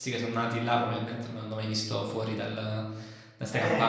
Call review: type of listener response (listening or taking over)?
taking over